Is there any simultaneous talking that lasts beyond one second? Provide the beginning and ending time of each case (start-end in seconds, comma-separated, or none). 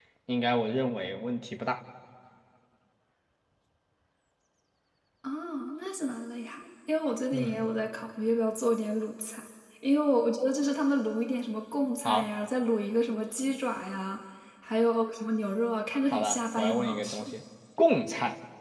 16.1-17.4